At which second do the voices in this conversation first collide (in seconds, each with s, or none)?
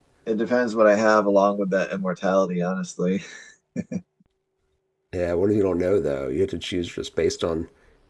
none